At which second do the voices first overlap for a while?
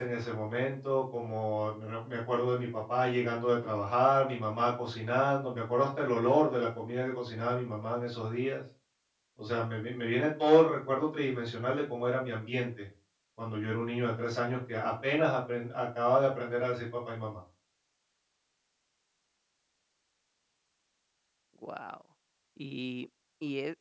none

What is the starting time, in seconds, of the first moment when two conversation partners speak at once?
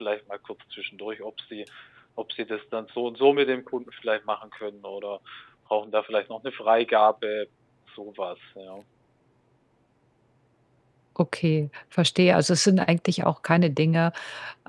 none

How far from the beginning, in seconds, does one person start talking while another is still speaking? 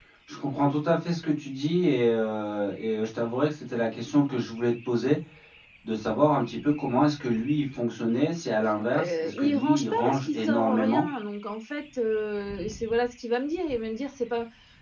8.9 s

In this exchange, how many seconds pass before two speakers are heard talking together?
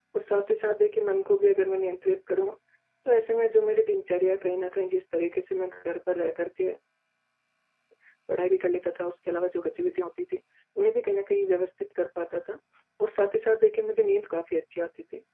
none

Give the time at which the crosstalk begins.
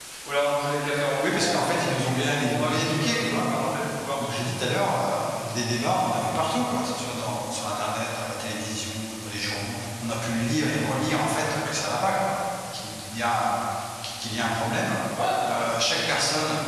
1.2 s

